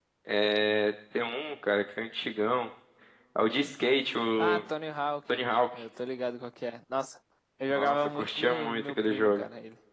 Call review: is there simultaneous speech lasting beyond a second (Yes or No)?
Yes